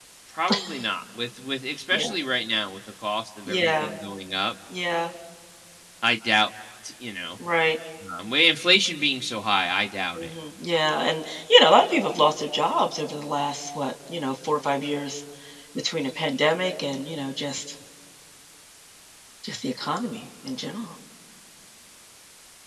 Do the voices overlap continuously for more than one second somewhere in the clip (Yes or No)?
No